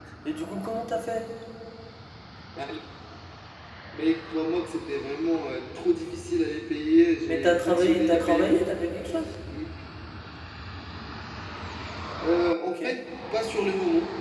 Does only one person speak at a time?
No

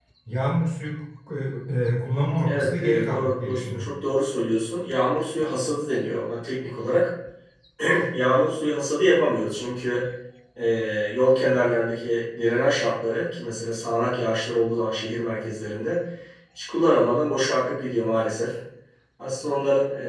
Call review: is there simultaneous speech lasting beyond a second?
Yes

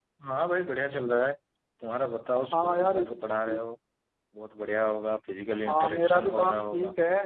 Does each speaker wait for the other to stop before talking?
No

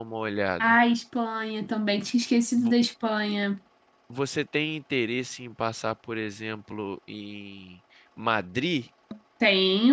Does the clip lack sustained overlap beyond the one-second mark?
Yes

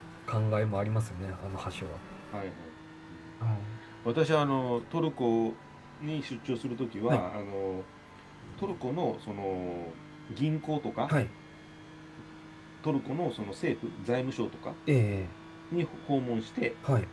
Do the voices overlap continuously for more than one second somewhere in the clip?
No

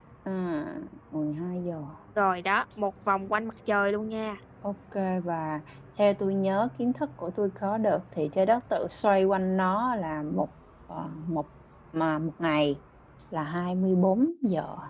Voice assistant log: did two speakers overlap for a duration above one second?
No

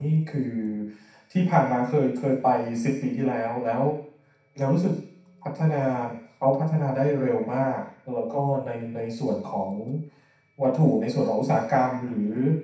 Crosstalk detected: No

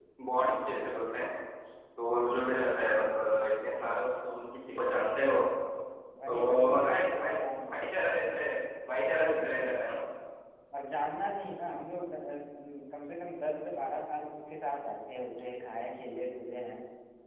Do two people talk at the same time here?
Yes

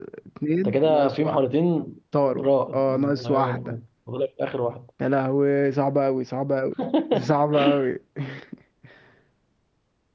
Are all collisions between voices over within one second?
No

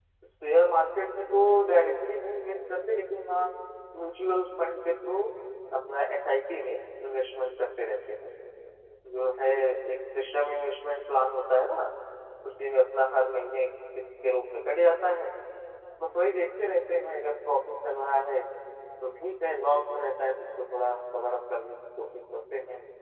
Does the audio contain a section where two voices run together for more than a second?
No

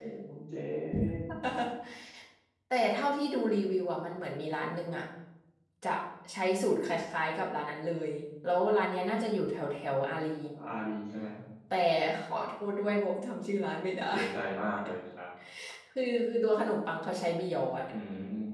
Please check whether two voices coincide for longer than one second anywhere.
No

